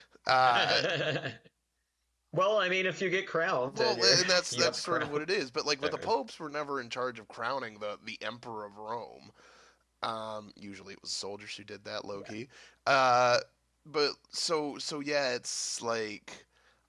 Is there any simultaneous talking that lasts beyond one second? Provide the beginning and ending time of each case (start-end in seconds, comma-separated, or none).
3.7-5.2